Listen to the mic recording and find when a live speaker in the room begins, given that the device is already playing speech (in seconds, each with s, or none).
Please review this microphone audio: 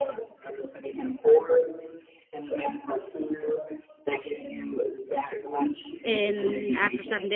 6.0 s